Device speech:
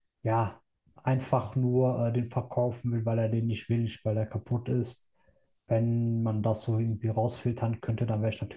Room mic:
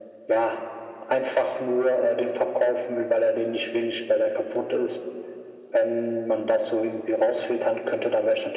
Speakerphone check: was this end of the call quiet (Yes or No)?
Yes